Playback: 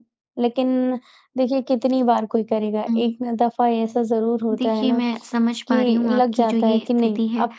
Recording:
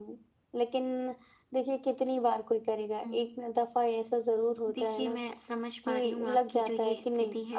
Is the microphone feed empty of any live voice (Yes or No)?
Yes